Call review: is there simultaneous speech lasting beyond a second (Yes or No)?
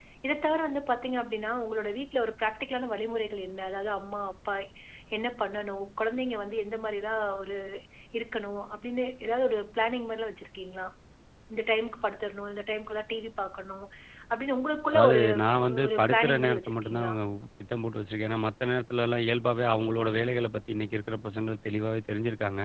Yes